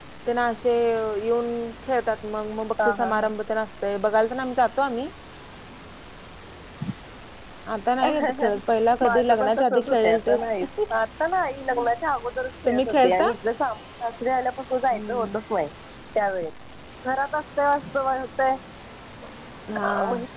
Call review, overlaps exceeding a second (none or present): present